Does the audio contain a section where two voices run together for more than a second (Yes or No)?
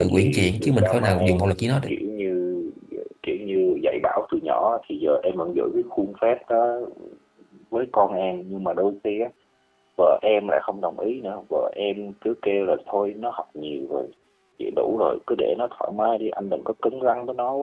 Yes